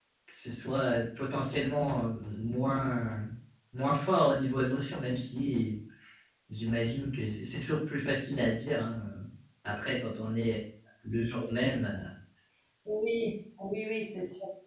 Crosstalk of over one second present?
No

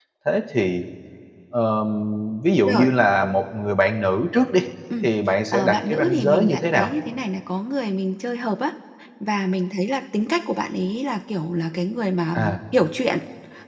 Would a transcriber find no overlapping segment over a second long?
No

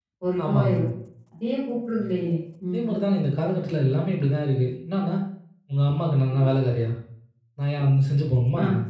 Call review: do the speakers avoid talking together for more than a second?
Yes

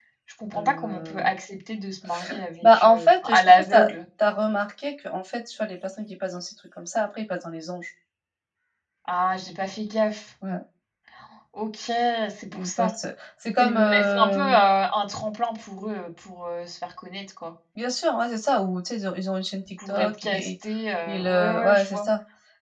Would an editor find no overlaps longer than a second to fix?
No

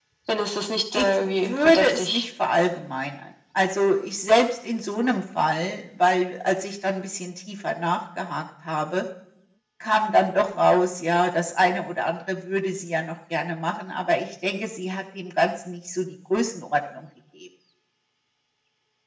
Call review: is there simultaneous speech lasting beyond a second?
Yes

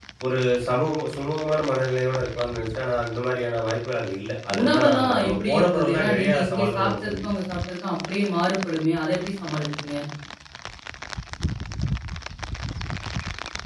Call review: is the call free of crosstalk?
No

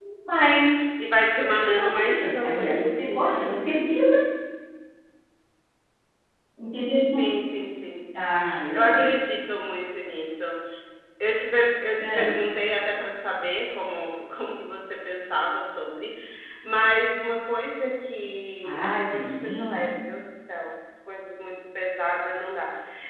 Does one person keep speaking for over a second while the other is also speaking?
Yes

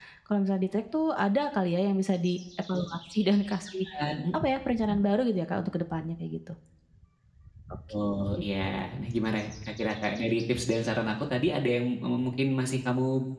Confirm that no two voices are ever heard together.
Yes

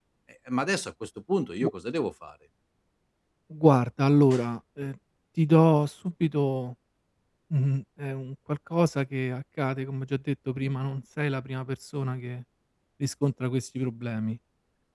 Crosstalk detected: No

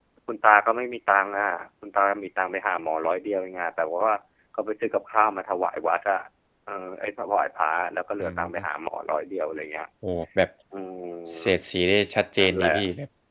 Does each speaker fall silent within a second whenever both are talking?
Yes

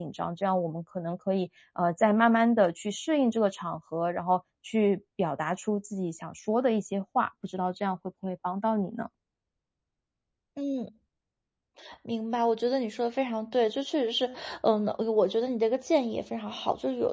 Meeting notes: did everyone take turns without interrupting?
Yes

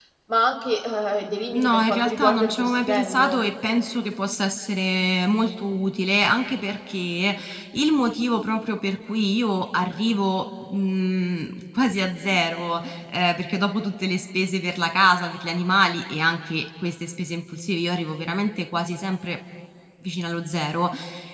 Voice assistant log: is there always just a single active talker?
No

